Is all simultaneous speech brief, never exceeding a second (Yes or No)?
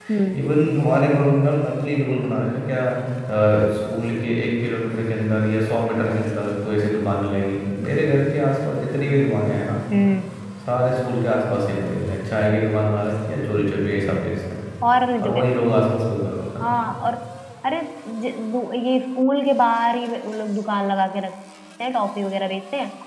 Yes